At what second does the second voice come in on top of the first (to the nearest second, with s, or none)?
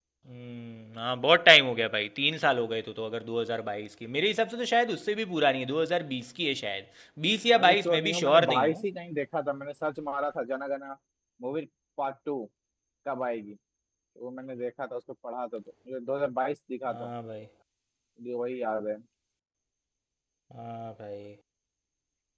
8 s